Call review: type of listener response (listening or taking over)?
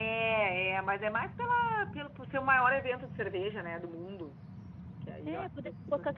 taking over